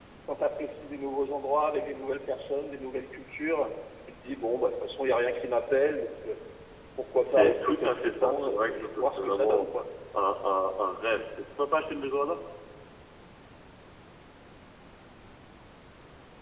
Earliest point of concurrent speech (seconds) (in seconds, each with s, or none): 7.2 s